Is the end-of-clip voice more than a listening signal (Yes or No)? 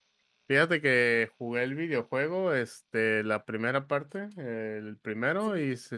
No